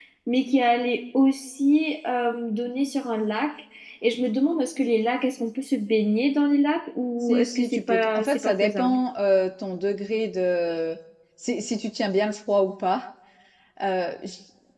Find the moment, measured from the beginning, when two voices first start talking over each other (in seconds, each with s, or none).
7.2 s